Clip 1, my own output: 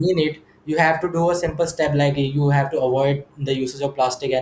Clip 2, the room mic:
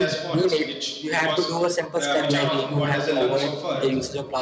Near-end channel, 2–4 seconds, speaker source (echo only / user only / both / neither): both